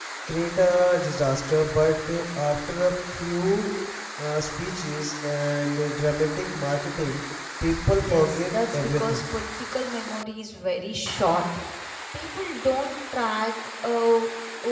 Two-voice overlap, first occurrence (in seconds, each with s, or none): 8.0 s